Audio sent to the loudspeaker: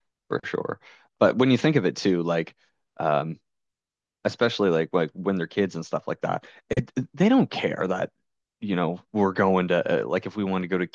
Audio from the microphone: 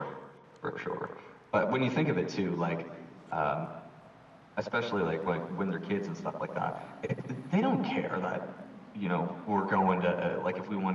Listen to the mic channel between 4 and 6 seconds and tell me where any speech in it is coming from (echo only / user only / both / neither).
echo only